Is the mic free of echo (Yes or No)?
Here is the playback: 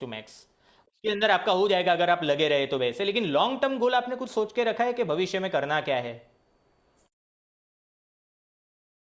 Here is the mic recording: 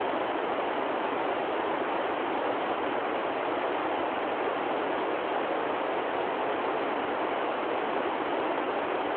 Yes